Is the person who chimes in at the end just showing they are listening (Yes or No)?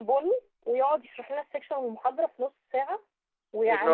Yes